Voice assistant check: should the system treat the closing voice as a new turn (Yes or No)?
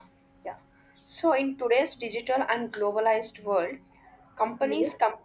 No